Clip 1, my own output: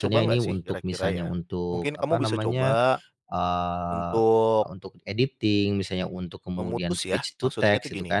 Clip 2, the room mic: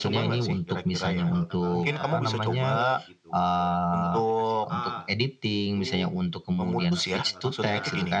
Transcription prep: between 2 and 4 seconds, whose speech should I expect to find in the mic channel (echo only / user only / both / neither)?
both